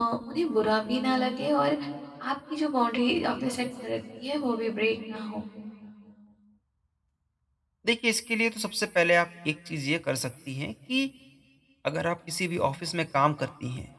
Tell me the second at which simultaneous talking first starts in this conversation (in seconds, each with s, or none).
none